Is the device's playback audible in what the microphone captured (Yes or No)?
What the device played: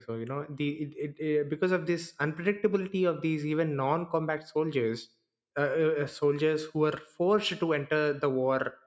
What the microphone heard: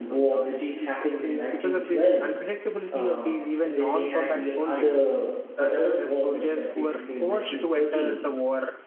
Yes